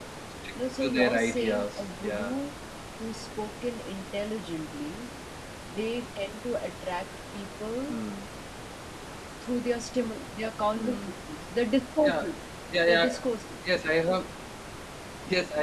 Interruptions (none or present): present